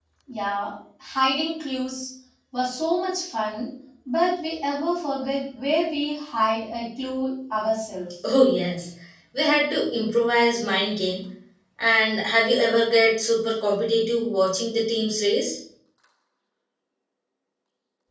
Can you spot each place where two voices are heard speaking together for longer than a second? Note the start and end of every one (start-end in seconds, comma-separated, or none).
none